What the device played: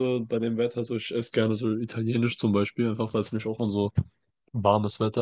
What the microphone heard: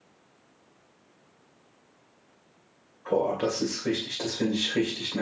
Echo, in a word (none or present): none